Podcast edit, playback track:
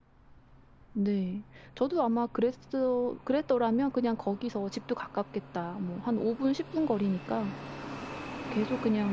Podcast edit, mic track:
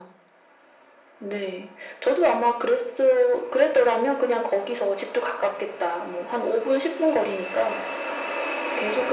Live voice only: none

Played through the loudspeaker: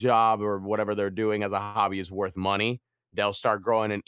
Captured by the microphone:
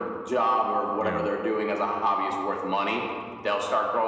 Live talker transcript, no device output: Yeah.

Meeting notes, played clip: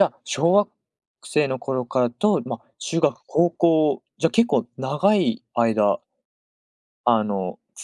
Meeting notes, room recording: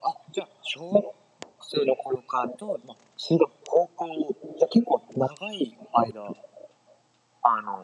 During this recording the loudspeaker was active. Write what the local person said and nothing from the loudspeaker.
none

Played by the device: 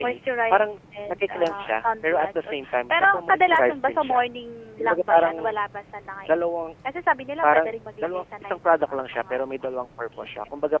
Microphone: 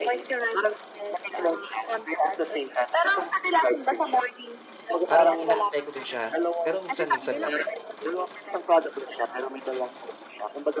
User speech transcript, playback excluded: Parang, ina-apply ko din siya, pero minsan-minsan lang.

